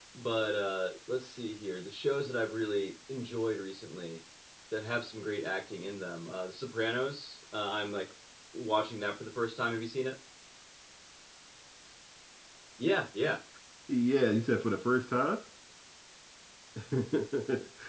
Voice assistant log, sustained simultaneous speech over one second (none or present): none